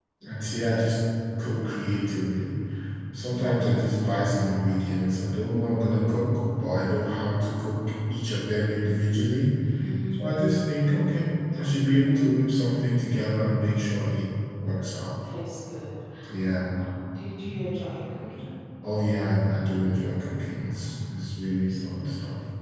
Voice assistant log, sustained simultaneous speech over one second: none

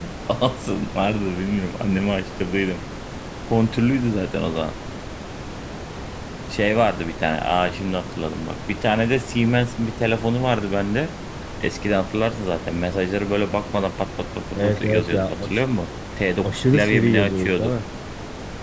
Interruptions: present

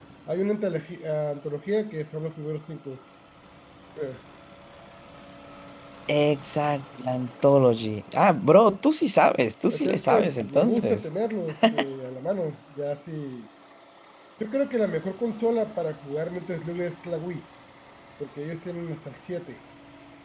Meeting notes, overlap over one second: present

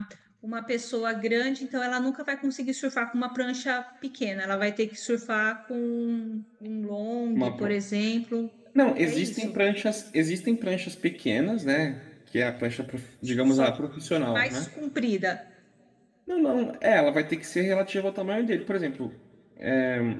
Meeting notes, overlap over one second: none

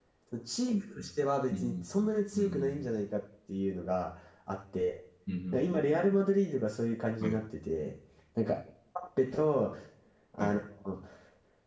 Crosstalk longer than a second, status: none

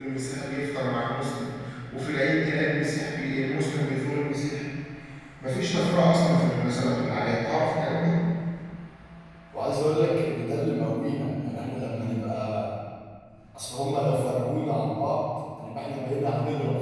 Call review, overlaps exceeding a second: none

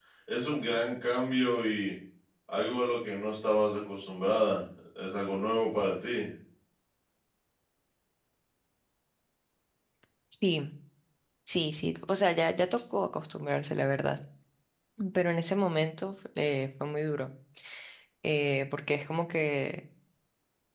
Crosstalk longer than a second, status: none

